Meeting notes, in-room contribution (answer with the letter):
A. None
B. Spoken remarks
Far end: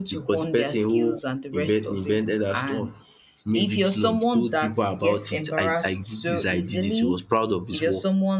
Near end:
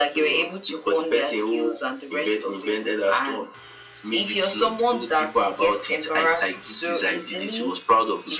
A